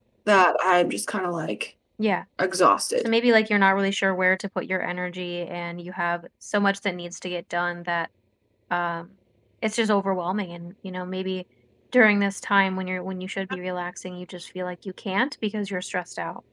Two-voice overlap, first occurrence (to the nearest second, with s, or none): none